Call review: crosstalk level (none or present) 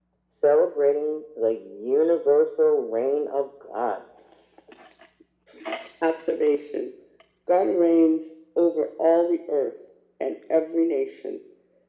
none